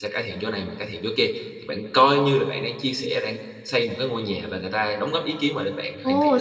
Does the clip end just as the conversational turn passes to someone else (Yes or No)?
Yes